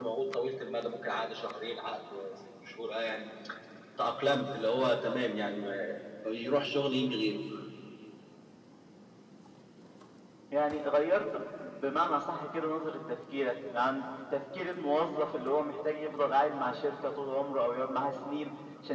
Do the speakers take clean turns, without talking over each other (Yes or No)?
Yes